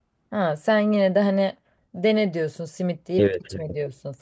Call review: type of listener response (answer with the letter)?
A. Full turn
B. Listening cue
A